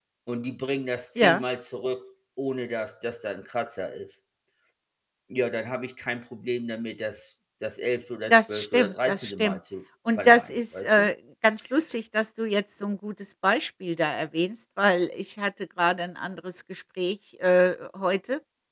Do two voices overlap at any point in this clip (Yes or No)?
Yes